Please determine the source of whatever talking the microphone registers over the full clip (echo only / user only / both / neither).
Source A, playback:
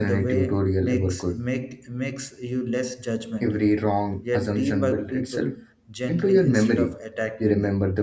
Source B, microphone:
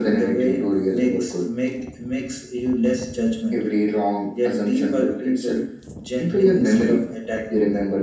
echo only